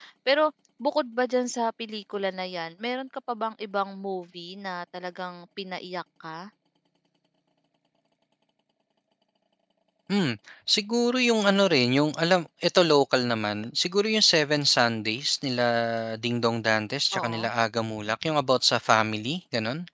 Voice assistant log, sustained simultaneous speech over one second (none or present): none